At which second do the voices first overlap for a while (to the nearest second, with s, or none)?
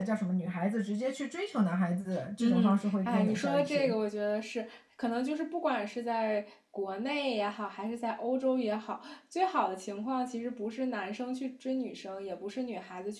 2 s